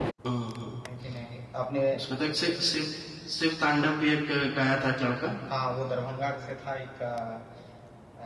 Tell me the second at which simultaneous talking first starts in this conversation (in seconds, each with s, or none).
none